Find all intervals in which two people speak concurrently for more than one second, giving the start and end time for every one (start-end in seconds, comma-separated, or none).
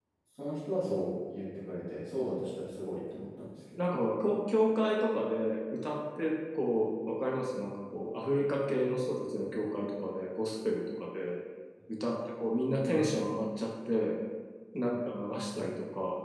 none